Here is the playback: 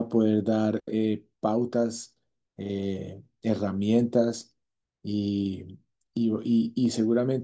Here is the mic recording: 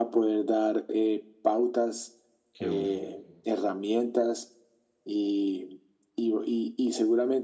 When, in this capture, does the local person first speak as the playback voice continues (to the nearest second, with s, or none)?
3 s